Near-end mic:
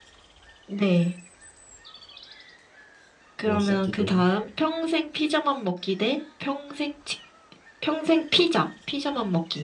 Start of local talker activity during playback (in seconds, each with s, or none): 3.4 s